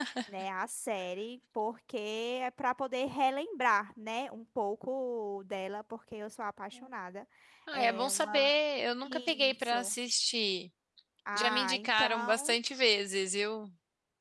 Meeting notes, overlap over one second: present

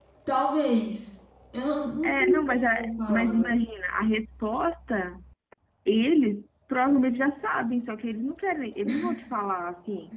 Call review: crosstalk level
present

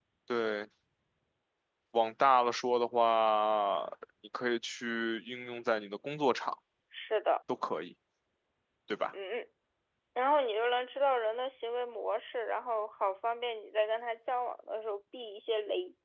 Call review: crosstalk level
none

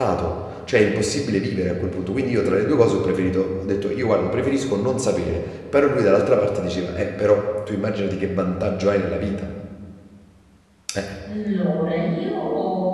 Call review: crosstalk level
none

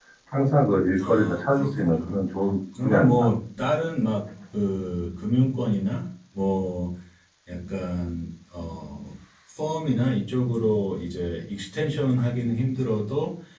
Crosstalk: present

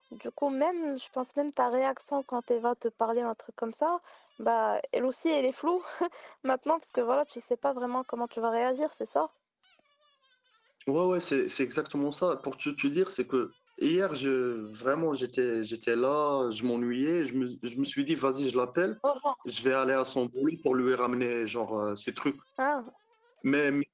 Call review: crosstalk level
none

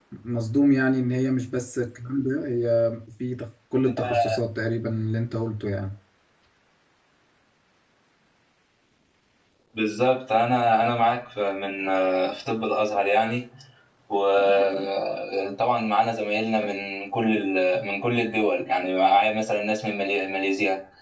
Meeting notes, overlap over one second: none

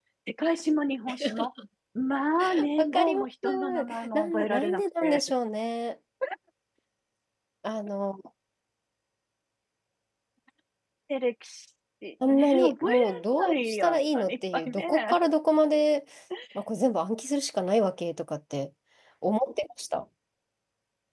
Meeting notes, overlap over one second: present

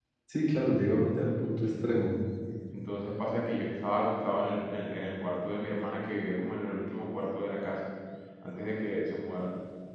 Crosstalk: none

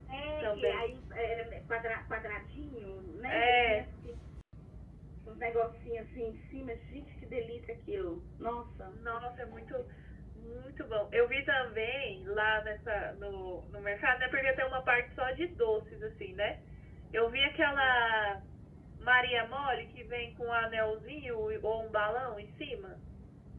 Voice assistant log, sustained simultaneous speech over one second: none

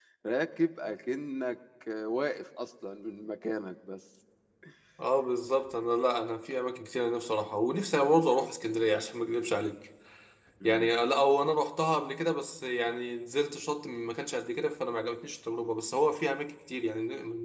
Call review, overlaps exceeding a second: none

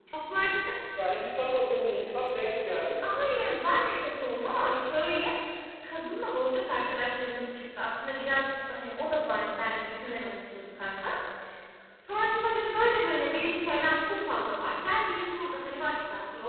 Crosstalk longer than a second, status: none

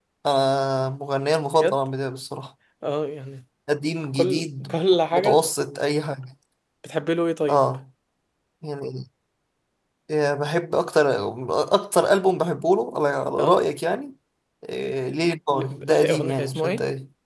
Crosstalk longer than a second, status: present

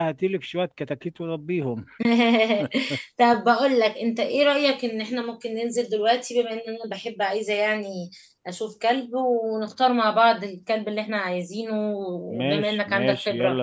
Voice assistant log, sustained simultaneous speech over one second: present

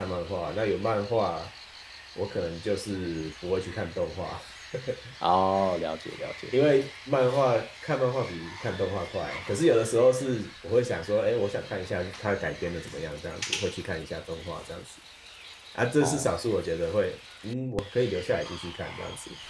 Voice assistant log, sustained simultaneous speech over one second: none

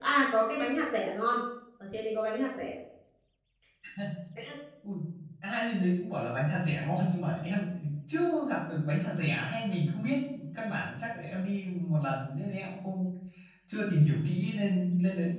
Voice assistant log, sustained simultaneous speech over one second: none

